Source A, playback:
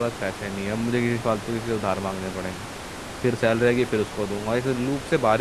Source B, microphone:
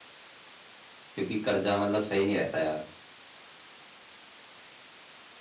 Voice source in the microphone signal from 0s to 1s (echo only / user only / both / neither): neither